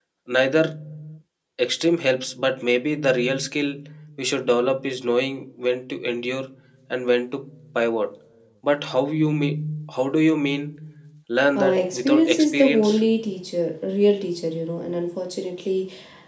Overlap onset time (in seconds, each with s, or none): 11.6 s